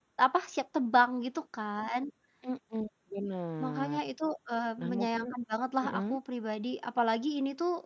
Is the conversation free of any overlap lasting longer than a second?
Yes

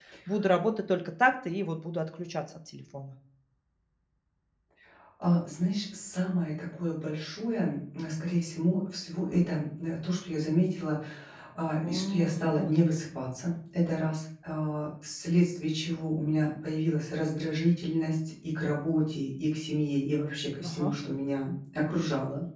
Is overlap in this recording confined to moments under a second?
No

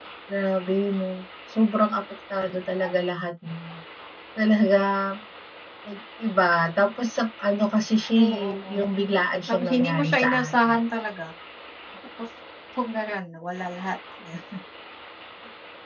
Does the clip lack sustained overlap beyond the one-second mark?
No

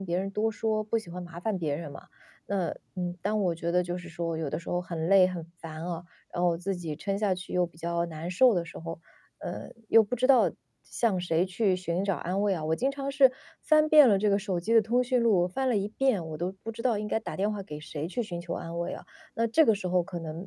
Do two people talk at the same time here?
No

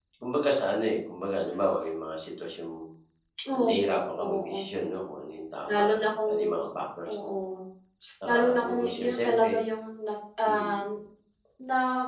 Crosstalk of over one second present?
Yes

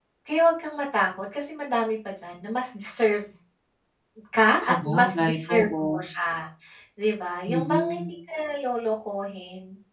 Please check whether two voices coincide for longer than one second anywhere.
Yes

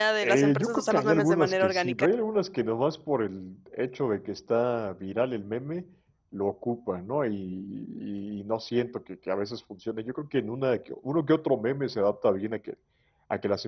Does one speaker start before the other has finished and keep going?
Yes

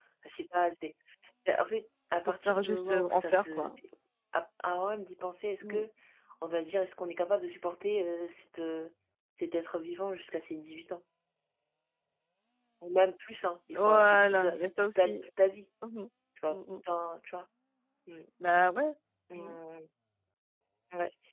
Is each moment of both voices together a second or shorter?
No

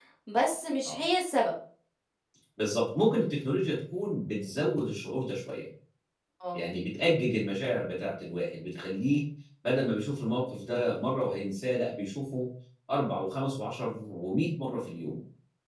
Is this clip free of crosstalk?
Yes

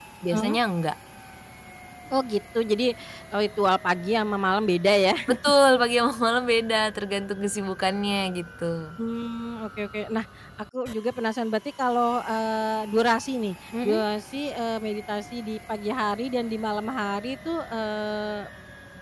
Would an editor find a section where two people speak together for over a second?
No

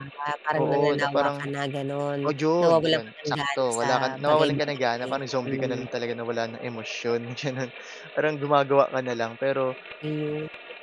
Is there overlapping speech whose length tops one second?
Yes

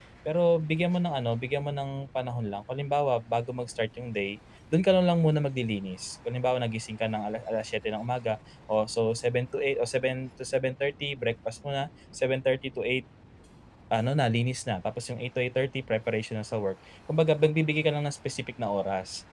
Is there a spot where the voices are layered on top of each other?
No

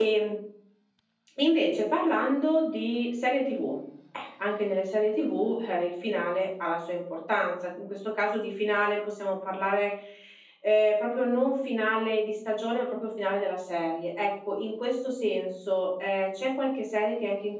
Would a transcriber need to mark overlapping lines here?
No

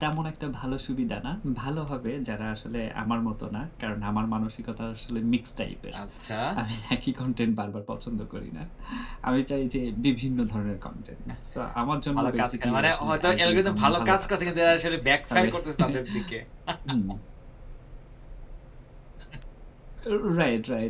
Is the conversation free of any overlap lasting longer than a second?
No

